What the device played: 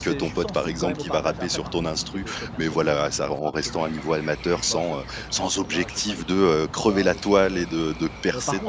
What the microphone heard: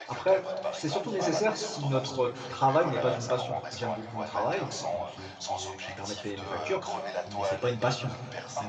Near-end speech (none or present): present